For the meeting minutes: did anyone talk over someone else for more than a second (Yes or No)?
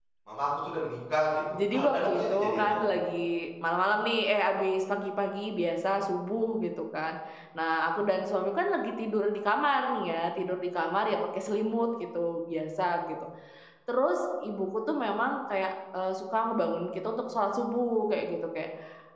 Yes